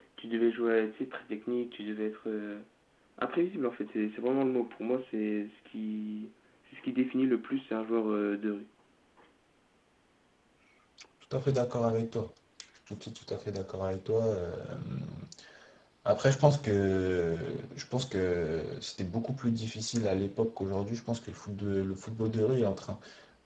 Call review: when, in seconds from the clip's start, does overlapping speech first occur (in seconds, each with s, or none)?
none